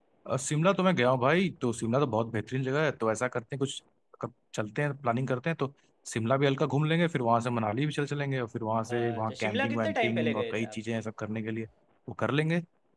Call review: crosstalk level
present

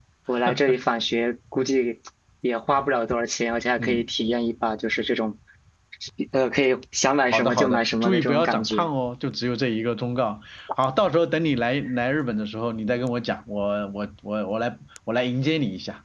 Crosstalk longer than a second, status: present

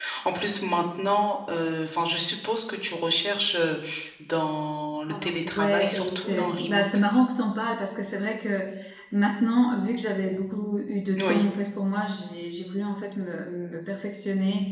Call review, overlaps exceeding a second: present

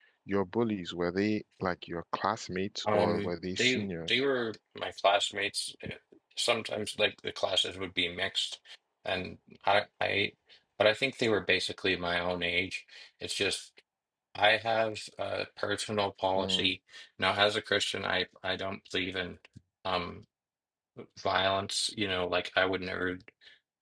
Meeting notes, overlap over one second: present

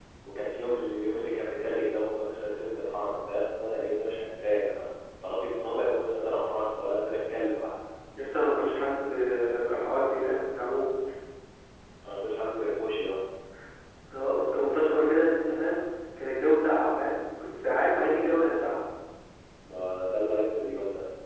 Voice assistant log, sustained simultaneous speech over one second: none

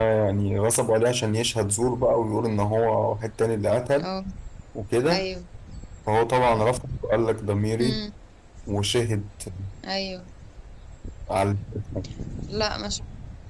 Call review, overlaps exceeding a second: none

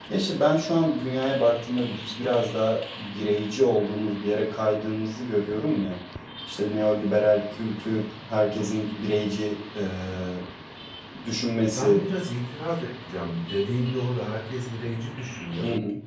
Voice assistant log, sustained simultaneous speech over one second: none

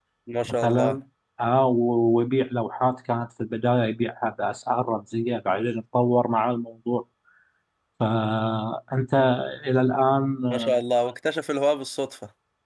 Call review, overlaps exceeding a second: none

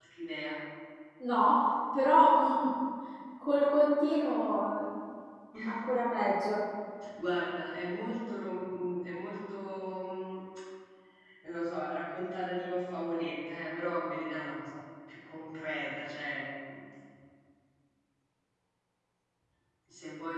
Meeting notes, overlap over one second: none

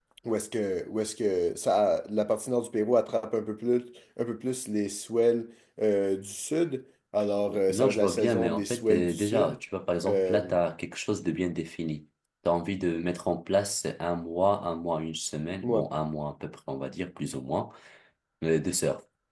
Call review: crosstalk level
present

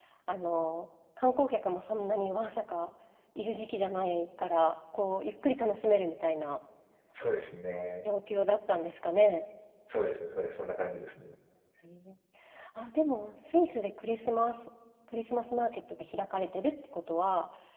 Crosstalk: none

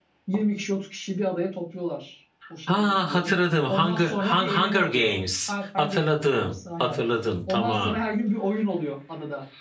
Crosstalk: present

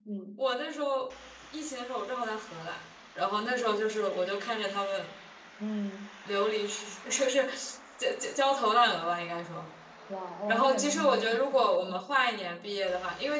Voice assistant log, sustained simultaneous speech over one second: present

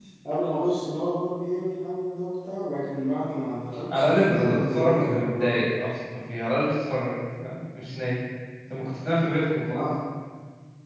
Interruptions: present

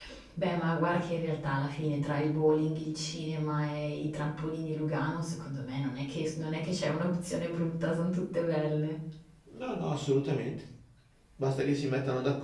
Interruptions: none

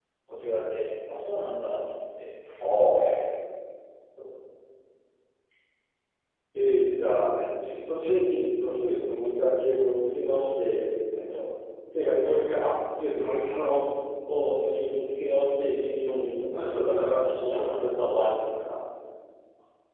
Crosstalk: present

